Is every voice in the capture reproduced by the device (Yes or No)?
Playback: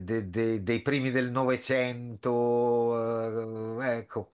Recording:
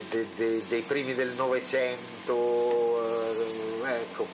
Yes